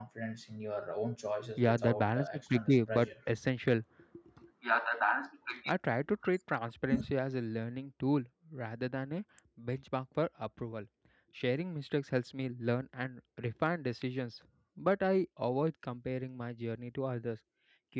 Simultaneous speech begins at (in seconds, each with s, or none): 1.4 s